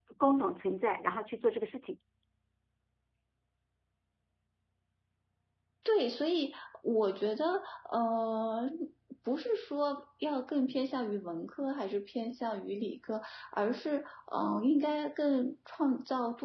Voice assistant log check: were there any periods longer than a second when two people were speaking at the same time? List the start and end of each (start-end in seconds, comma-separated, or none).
none